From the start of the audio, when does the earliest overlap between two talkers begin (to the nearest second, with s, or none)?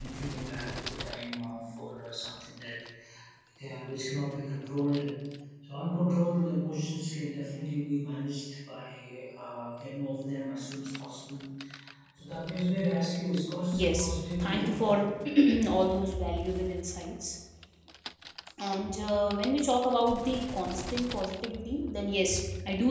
14 s